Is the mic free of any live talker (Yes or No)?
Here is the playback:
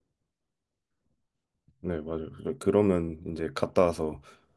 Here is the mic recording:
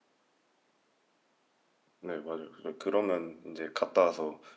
Yes